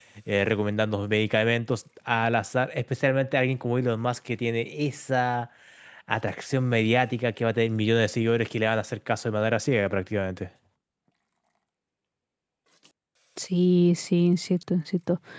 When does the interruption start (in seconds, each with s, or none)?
none